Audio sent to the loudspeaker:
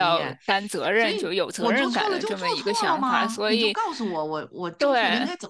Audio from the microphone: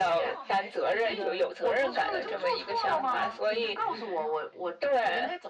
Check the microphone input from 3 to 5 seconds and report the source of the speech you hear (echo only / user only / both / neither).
both